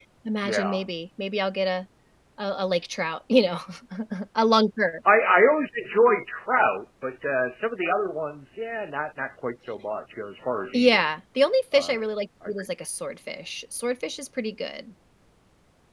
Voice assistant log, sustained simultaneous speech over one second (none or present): none